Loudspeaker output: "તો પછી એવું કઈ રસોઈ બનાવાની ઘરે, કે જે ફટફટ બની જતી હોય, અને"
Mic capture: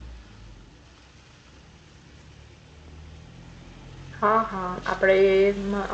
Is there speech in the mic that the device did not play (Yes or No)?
Yes